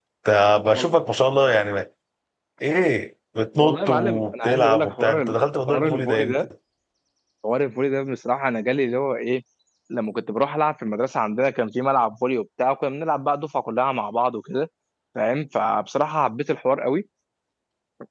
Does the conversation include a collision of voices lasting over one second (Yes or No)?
Yes